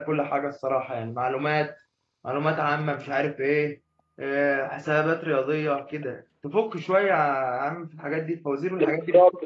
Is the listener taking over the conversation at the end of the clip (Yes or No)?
Yes